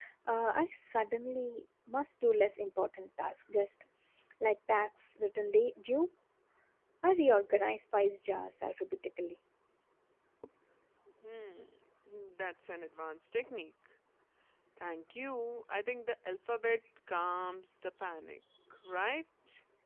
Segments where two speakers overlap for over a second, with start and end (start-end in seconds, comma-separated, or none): none